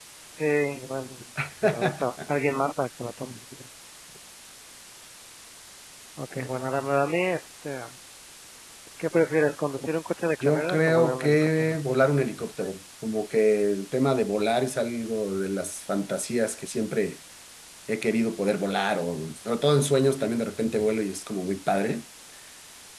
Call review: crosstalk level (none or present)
present